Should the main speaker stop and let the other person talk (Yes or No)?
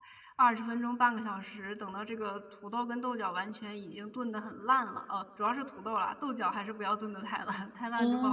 Yes